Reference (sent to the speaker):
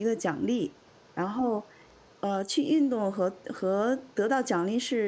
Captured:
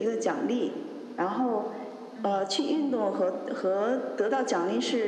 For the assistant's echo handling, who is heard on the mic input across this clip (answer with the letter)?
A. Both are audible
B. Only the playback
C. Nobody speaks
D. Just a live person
A